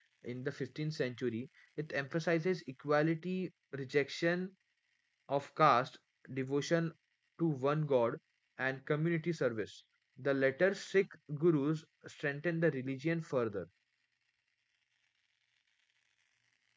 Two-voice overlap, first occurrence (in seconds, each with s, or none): none